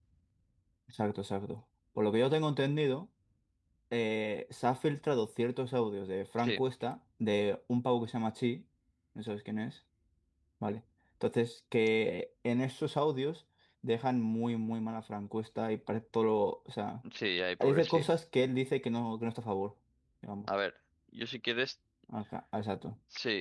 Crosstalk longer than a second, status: none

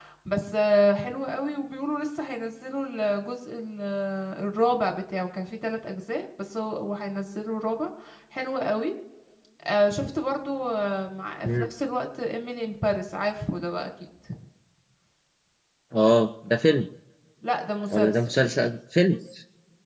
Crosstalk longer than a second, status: none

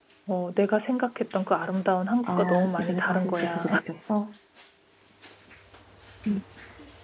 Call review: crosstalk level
present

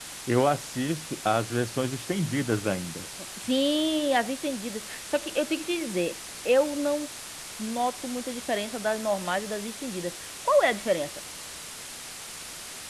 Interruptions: none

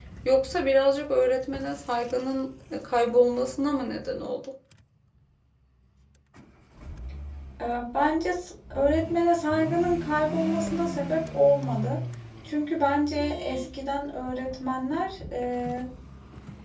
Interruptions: none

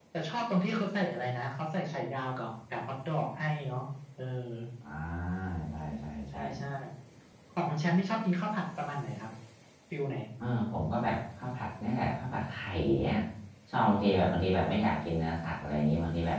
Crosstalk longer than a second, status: none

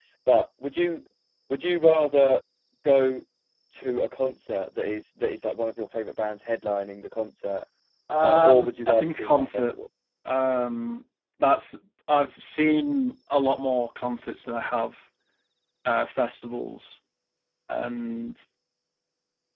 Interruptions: present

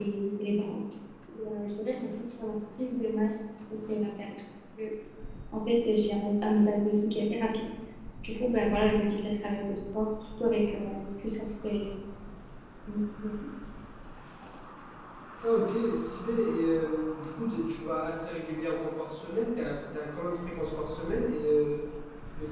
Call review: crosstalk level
none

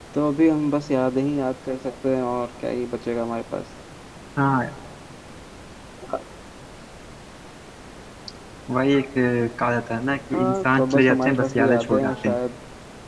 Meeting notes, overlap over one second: present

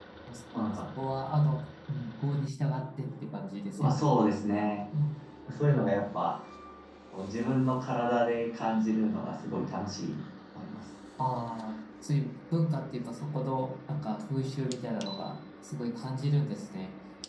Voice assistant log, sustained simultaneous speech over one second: none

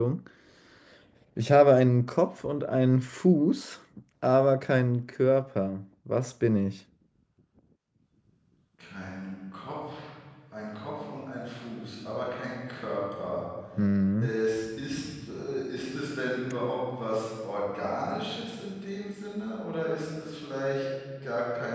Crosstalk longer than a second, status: none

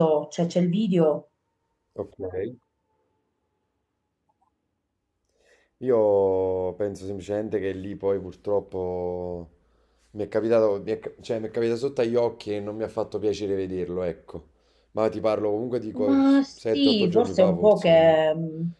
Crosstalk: present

